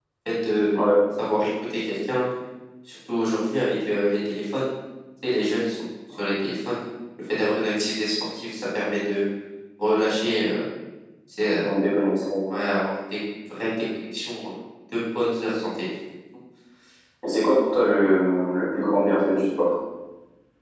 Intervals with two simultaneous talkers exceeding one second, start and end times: none

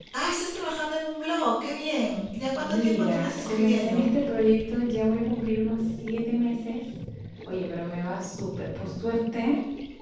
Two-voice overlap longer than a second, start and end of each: 2.6-4.1

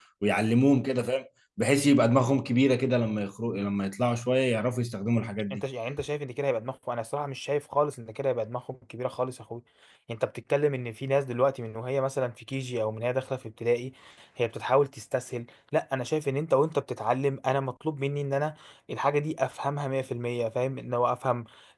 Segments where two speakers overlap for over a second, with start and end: none

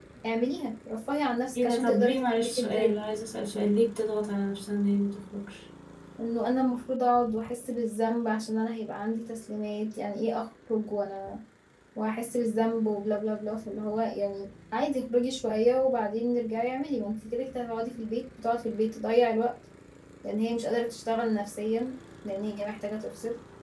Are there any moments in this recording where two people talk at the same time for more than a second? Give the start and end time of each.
1.6-3.0

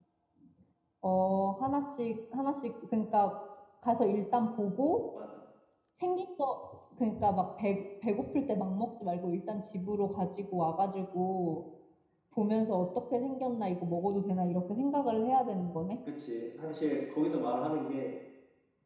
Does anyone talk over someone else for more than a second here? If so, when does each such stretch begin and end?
none

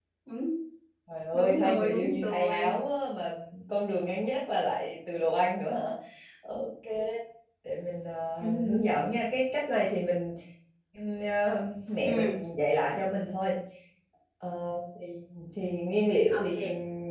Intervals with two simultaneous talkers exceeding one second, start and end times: 1.3-2.8

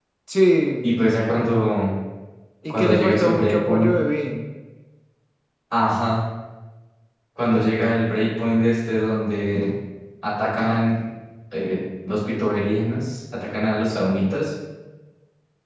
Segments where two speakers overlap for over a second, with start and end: 2.7-3.9

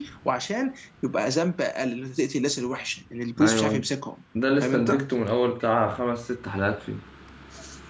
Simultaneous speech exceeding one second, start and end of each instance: none

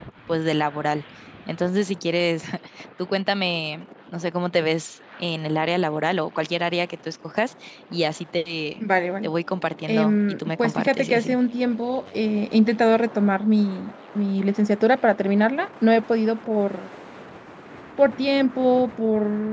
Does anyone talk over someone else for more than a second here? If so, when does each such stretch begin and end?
9.9-11.4

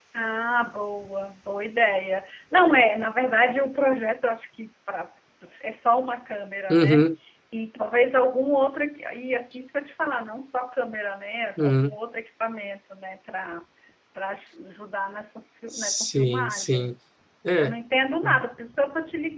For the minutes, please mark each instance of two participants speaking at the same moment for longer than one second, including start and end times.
15.7-16.9

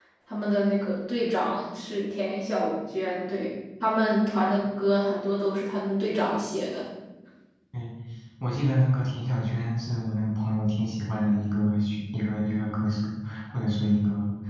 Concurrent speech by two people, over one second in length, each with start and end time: none

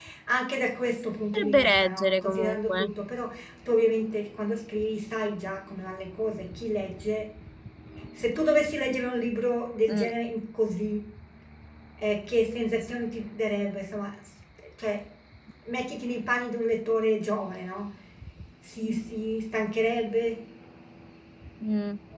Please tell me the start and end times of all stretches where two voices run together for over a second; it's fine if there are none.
1.3-2.9

